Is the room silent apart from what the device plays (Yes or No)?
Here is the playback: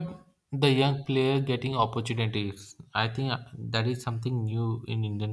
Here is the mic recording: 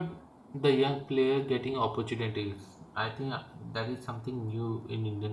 Yes